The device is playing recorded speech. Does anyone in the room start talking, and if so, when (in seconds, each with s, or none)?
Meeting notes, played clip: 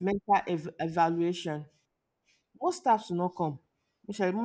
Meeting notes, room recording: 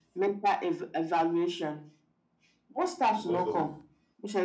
3.1 s